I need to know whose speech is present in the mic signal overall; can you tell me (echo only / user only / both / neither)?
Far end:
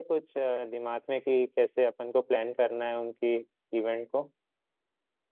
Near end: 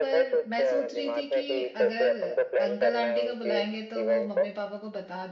both